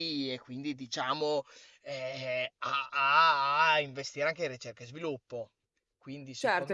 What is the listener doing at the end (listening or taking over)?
taking over